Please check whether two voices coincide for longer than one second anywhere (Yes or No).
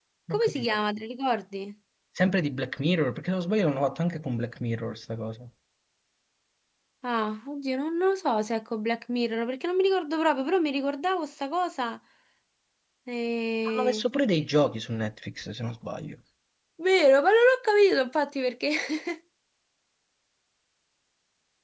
No